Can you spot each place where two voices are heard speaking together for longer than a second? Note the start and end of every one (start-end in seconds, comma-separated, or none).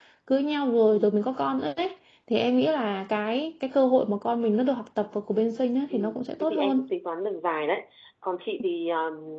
none